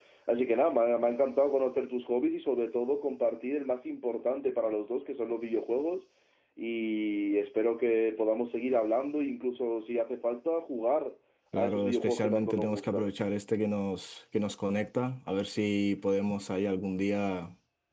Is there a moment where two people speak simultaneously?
Yes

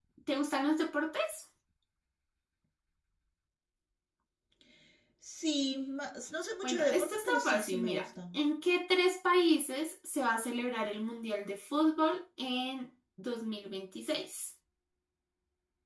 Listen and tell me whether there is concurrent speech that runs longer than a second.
Yes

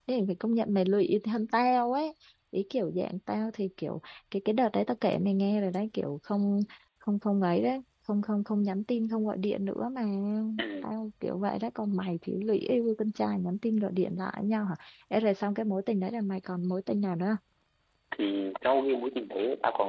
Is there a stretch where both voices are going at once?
No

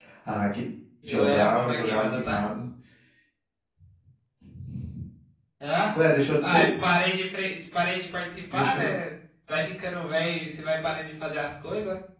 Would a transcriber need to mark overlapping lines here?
Yes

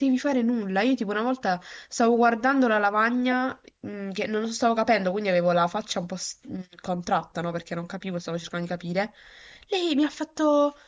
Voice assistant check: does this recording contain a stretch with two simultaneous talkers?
No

